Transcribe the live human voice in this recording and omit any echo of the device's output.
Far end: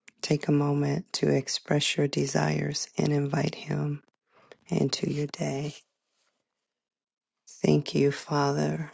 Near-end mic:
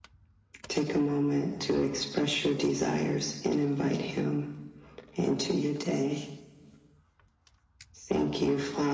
none

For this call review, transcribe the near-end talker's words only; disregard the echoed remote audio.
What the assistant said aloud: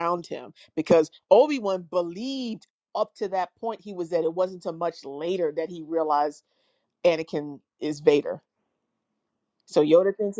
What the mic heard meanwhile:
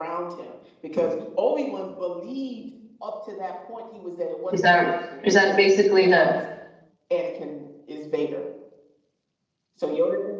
Is that is that basically the

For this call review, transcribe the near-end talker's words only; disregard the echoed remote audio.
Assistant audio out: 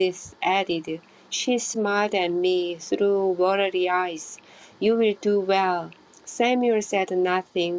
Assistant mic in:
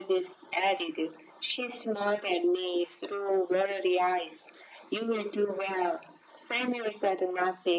none

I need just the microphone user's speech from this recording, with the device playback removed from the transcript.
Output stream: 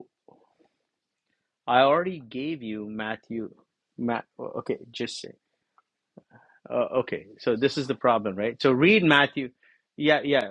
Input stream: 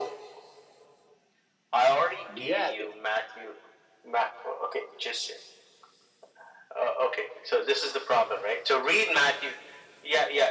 yeah, the,

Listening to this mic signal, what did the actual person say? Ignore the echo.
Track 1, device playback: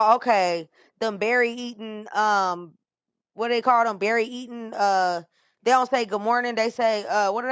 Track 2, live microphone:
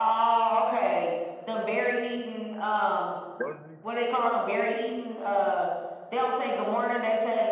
Was he?

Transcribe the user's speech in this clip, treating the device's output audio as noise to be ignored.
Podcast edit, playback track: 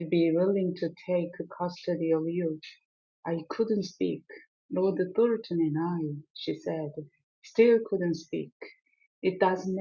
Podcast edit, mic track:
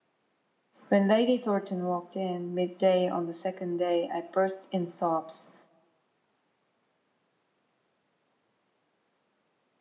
When Lady Thornton walked in midday on the second day, I burst in sobs.

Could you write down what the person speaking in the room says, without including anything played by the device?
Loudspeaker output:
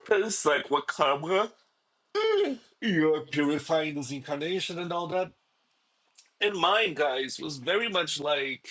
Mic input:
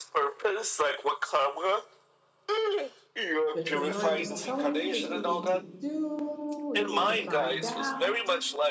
that your mind is telling you that you need to do, you need to find out,

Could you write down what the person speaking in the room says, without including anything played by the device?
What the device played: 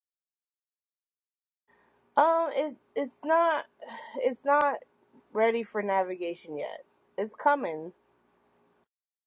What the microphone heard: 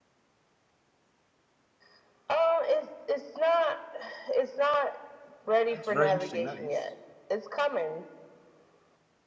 that's very interesting. That is

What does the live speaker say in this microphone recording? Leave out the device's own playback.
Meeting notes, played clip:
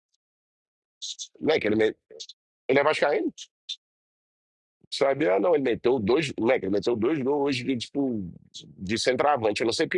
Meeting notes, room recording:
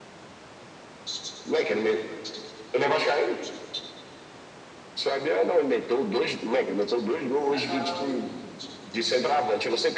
É a Carol aí.

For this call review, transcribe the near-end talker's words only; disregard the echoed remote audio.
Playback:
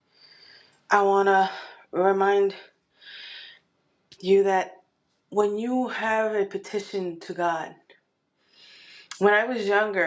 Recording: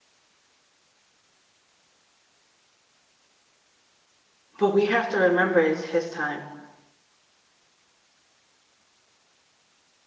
But we have to remember it's his time,

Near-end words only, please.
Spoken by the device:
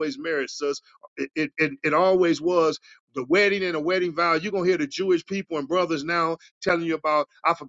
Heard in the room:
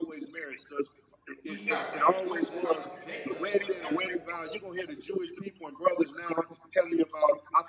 He shall reign over the house of Jacob forever.

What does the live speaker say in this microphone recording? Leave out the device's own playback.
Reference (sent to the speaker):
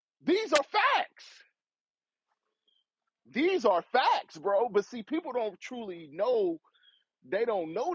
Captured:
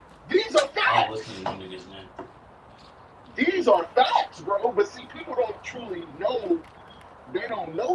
I don't listen to new niggas, man.

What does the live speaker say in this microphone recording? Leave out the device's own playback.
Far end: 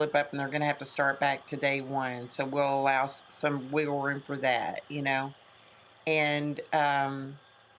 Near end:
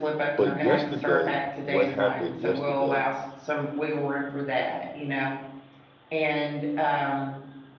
But yesterday, what happened yesterday

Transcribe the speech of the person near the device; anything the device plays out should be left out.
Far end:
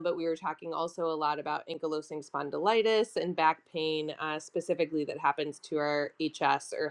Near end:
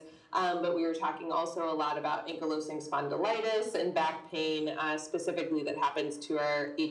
none

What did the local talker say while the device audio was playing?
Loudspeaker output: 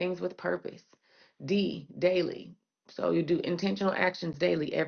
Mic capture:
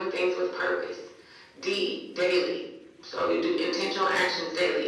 none

